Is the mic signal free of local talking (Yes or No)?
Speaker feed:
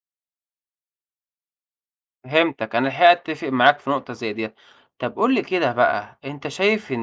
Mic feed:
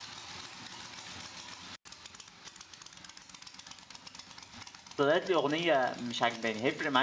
No